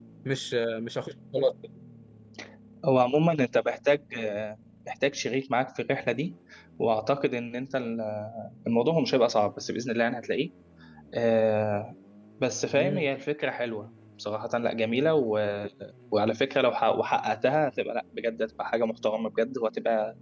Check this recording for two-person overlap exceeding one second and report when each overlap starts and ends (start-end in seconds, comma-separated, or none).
none